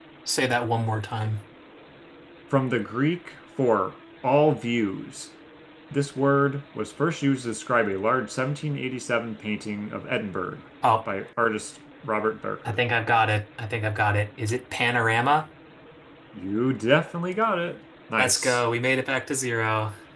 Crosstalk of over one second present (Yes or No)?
No